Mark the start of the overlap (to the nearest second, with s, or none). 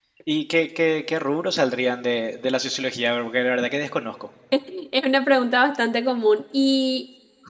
none